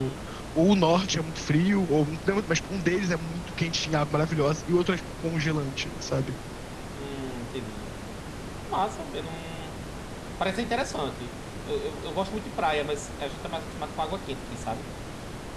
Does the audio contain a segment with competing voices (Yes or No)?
No